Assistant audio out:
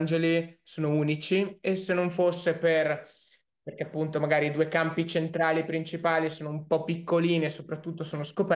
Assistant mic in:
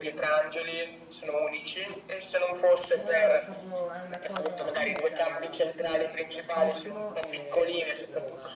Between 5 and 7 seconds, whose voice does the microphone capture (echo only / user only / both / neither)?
both